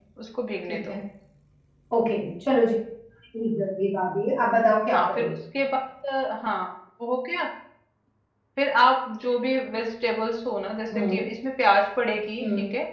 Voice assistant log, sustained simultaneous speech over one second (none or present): none